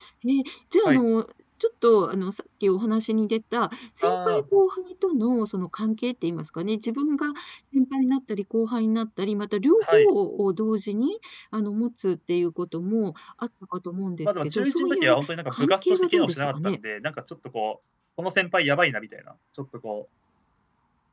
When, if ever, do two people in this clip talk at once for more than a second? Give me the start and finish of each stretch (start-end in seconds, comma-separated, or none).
14.2-16.8